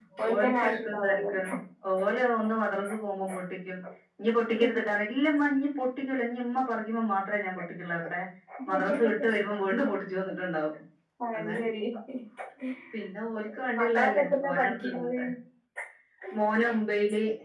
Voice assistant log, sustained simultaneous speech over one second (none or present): present